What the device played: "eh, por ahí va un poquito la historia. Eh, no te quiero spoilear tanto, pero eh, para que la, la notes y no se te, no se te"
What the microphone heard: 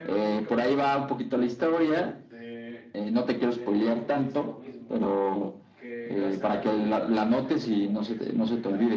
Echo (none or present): present